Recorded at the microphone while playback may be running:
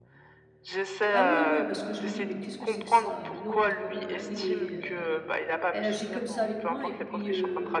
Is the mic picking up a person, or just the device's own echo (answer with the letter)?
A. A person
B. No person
A